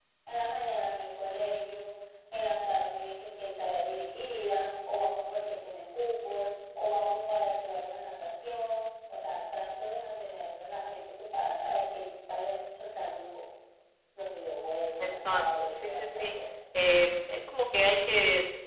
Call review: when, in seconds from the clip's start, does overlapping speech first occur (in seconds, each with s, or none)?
15.0 s